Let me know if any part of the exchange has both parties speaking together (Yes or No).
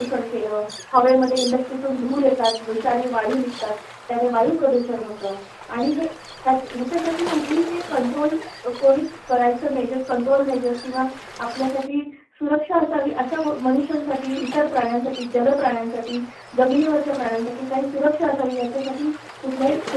No